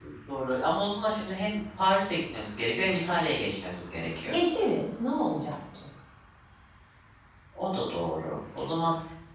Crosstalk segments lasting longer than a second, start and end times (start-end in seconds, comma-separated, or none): none